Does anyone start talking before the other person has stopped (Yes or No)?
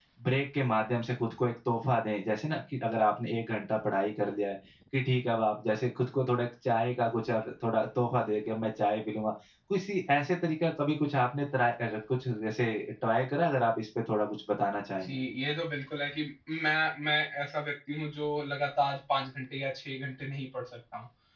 No